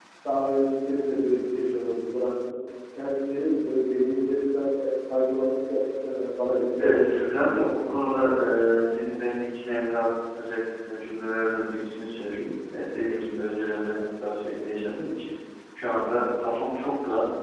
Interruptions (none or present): present